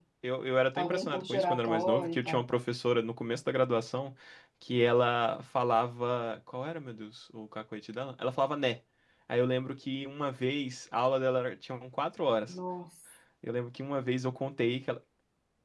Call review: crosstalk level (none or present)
present